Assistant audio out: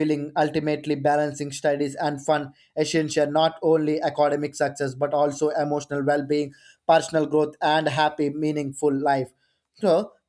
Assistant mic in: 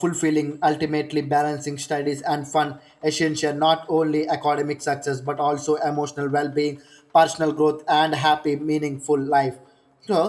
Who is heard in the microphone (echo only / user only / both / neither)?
echo only